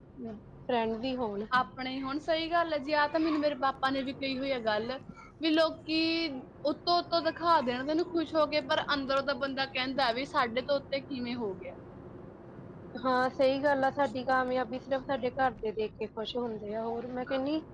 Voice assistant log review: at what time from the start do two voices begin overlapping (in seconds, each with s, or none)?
none